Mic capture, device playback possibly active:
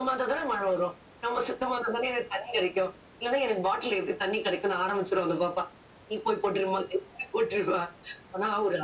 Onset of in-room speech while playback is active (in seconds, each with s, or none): none